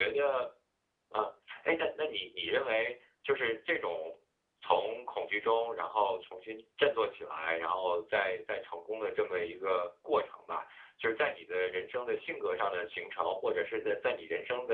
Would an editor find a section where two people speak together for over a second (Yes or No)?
No